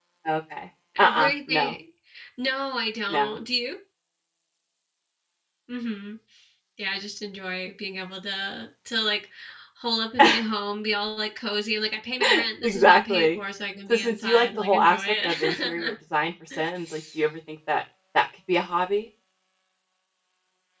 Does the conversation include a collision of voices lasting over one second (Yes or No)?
Yes